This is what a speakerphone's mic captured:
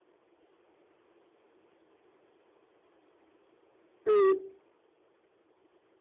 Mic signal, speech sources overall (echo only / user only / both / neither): user only